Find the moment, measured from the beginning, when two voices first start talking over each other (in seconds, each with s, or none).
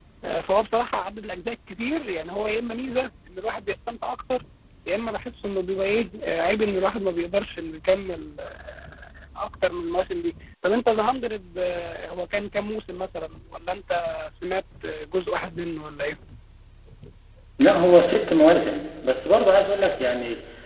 none